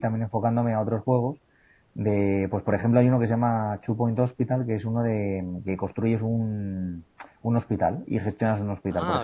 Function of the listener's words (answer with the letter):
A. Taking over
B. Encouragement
A